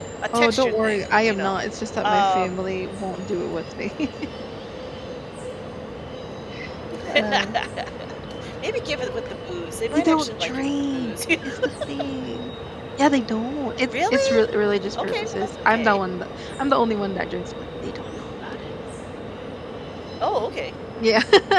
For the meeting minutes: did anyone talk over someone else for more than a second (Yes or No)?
Yes